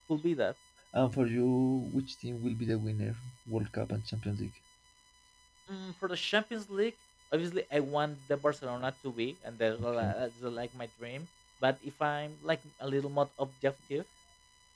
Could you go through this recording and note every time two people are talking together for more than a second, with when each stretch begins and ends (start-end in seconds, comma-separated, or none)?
none